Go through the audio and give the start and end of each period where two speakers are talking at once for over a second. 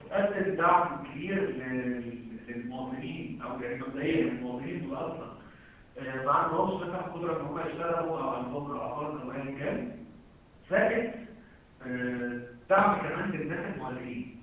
none

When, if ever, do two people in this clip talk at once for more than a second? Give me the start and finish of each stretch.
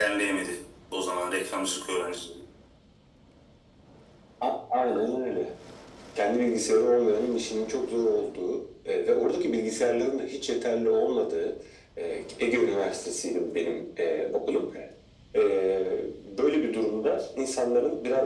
none

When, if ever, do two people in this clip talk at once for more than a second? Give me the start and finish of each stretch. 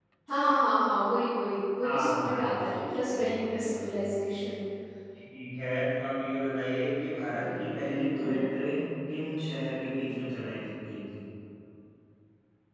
1.8-3.9

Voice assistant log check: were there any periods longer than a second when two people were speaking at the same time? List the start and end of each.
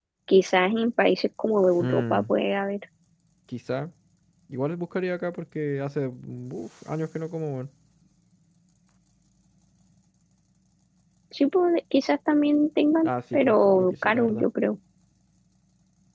13.0-14.4

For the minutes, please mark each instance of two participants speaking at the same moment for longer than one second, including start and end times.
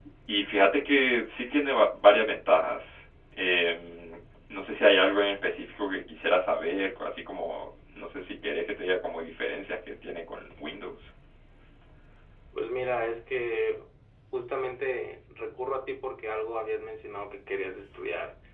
none

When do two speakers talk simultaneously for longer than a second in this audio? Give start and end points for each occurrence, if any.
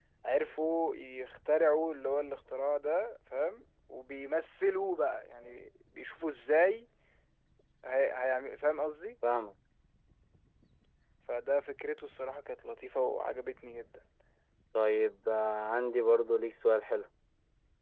none

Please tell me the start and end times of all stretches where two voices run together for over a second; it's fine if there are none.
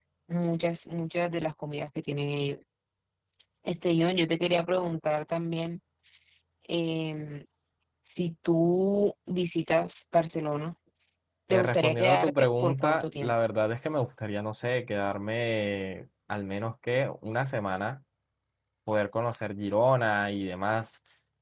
11.5-13.3

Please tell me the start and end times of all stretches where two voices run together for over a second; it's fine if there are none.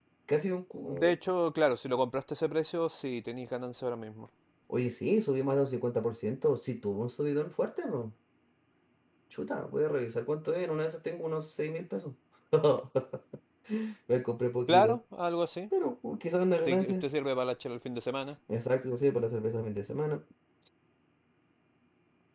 none

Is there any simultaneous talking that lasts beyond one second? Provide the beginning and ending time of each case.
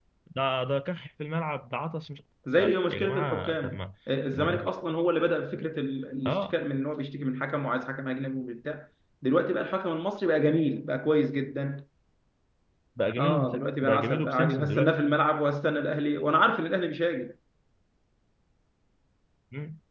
2.6-3.8, 13.2-14.9

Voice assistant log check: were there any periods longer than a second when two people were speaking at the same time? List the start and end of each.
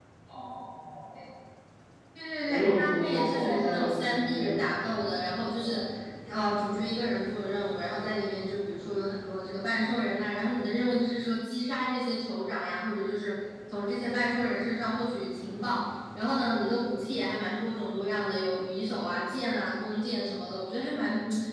2.5-5.0

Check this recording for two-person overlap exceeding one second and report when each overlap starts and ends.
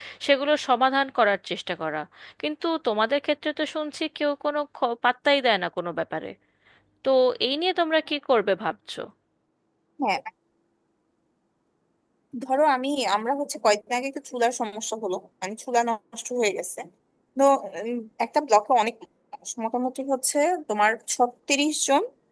none

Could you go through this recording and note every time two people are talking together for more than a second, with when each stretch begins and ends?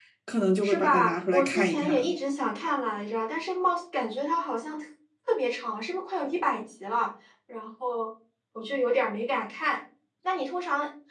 0.6-2.1

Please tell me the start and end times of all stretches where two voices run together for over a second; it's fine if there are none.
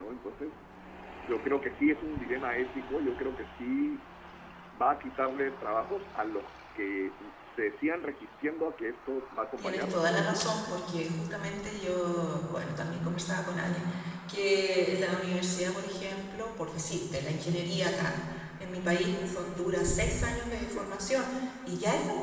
9.6-10.8

